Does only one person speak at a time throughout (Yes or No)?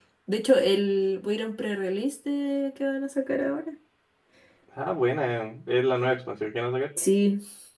Yes